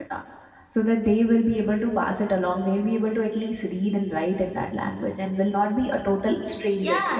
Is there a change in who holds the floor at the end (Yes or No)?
Yes